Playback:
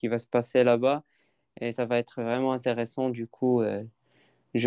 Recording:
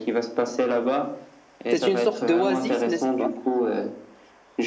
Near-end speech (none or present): present